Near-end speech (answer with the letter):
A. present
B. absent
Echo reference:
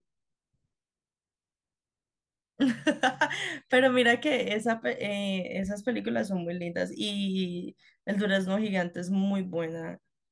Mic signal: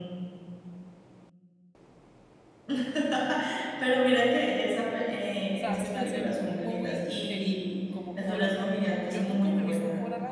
A